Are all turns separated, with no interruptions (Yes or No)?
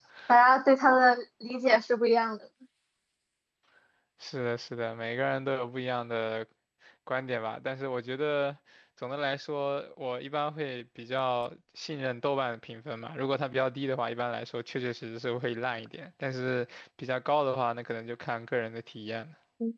Yes